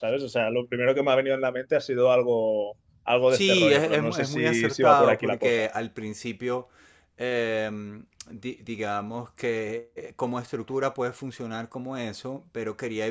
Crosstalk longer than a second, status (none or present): present